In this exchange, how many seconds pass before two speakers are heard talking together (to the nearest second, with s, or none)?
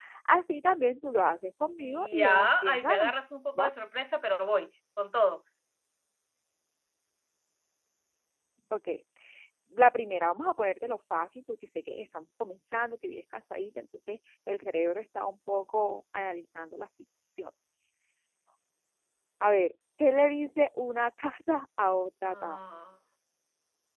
2 s